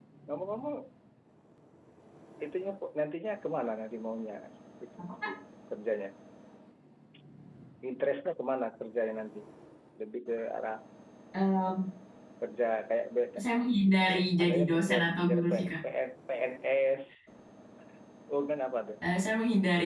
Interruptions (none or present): present